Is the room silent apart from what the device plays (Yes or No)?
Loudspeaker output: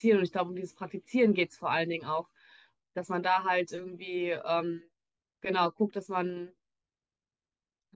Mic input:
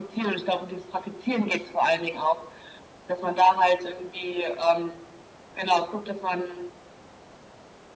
Yes